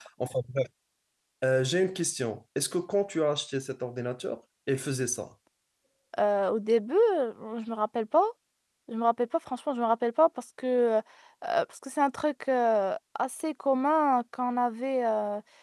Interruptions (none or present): none